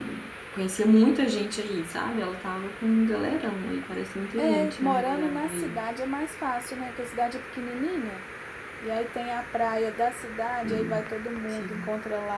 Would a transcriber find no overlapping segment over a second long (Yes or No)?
No